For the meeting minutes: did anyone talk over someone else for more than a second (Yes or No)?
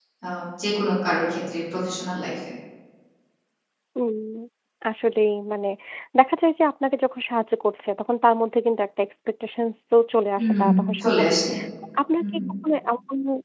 No